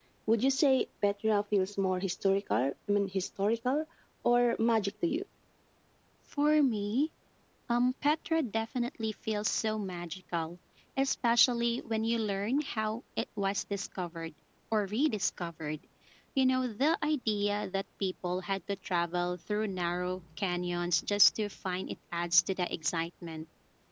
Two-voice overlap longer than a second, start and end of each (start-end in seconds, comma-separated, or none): none